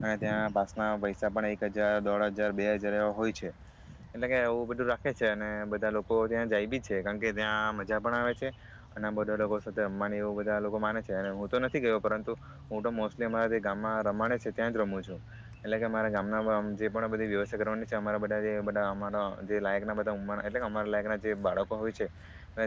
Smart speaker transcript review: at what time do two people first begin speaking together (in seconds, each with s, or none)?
none